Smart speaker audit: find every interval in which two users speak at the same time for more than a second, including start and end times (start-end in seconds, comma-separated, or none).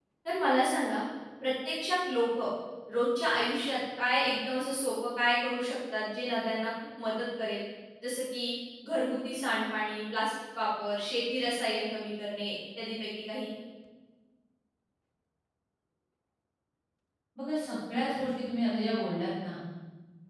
none